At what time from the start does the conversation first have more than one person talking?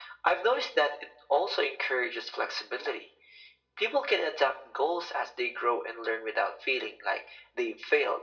none

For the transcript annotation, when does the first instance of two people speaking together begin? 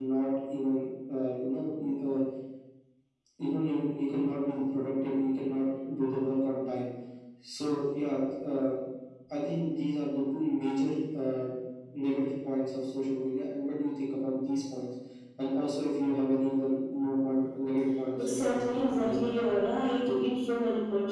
18.2 s

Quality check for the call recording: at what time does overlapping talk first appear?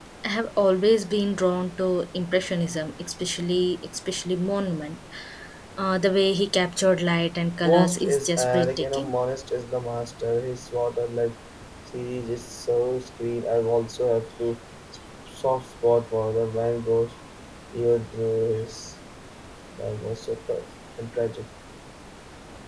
7.6 s

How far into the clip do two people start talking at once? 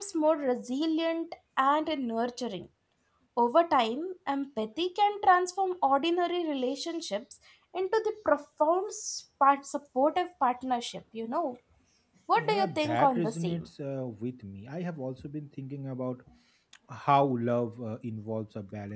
12.4 s

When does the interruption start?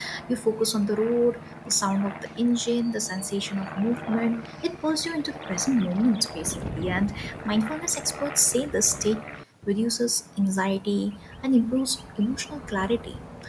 none

